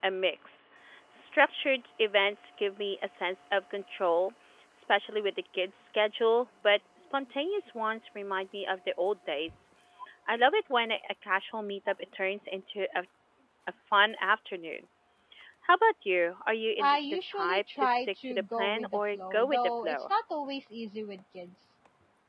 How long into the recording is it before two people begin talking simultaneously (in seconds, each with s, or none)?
16.8 s